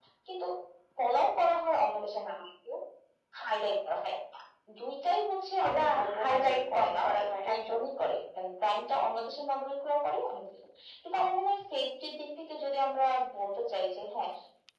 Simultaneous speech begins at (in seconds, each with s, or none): 5.6 s